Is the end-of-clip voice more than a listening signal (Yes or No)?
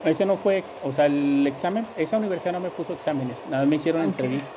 No